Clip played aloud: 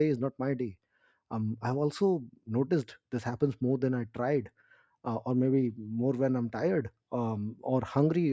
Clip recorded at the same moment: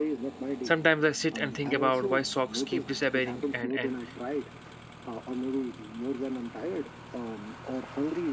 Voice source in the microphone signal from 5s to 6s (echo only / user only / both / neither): echo only